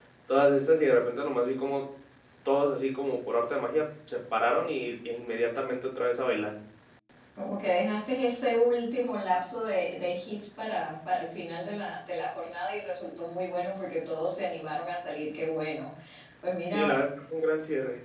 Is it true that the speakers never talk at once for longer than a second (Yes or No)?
Yes